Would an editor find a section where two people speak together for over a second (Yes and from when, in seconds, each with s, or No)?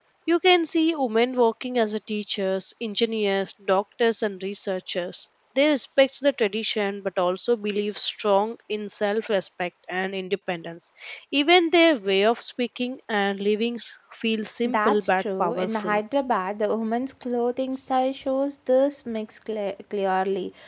Yes, from 14.6 s